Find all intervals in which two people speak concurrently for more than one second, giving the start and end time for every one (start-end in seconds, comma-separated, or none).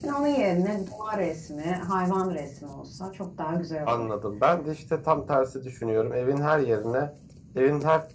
none